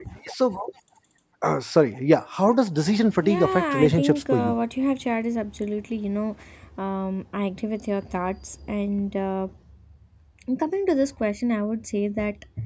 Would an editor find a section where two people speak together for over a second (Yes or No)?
Yes